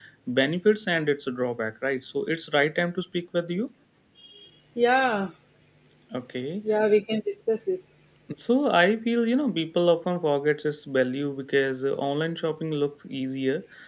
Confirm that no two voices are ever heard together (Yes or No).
Yes